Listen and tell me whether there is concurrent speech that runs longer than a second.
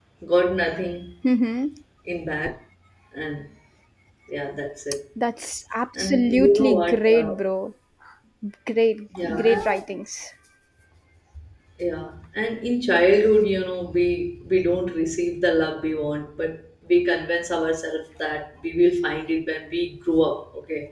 Yes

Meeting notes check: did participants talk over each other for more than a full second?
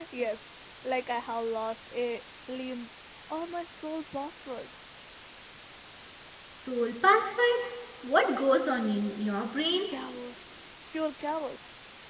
No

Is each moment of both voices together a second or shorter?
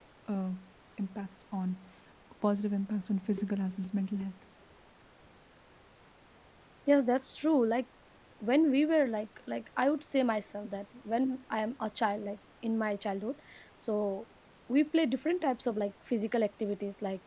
Yes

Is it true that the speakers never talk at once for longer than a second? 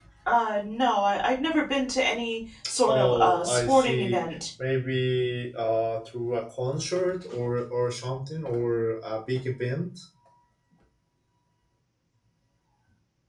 No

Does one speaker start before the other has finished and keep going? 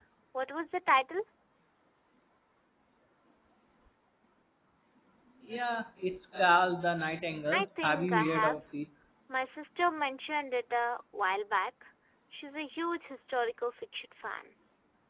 Yes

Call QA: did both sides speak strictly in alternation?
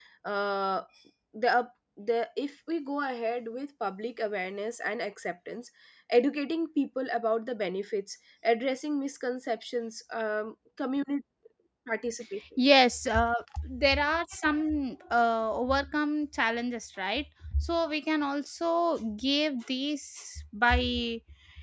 Yes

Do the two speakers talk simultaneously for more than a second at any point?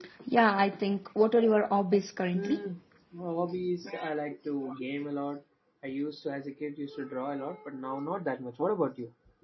No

